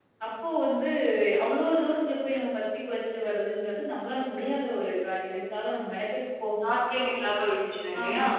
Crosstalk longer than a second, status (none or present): none